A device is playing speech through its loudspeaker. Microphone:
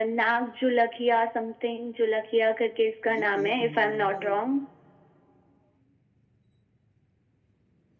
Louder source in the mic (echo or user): echo